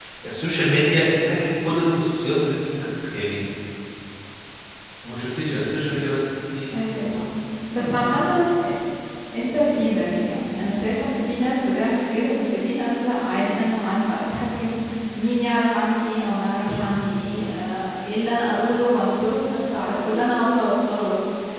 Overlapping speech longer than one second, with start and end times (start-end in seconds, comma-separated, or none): none